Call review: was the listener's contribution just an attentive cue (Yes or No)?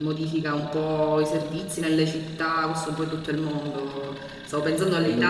Yes